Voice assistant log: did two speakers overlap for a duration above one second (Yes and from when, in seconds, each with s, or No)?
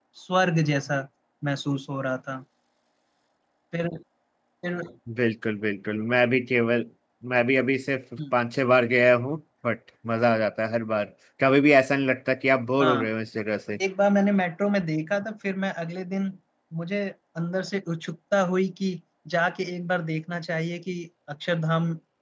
No